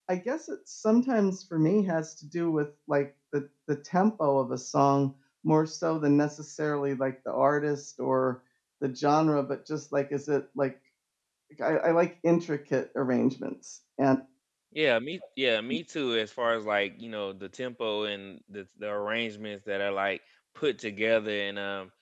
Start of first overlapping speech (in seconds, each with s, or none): none